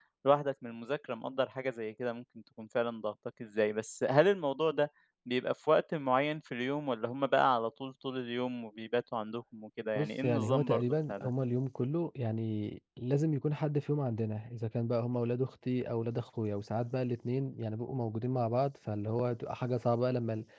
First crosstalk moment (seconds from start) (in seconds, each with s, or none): 9.9 s